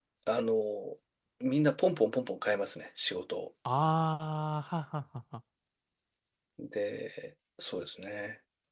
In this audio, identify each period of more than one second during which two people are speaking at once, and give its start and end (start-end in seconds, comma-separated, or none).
none